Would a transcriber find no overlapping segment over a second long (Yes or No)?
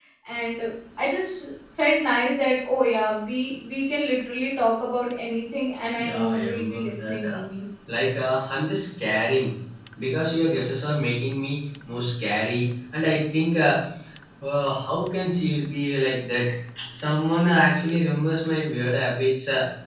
No